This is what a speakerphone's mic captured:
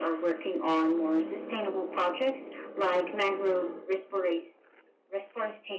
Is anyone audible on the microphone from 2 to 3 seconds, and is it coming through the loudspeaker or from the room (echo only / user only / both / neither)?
echo only